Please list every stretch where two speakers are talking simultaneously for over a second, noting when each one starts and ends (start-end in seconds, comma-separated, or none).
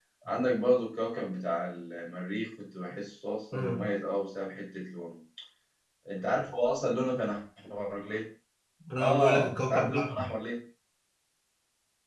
9.0-10.2